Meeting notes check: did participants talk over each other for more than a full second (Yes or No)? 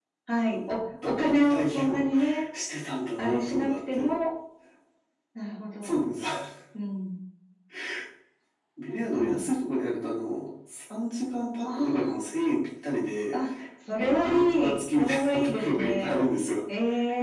Yes